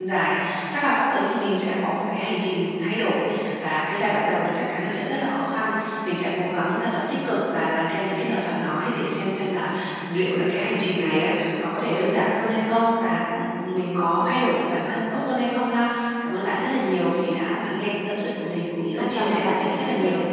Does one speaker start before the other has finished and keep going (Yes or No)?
Yes